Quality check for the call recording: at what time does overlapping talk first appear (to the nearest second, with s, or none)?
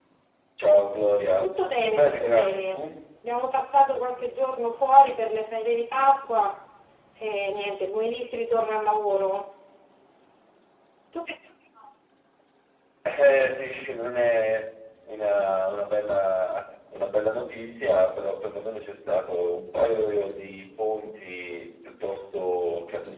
1 s